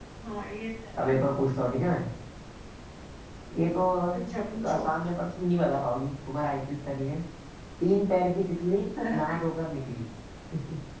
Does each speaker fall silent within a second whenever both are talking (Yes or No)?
Yes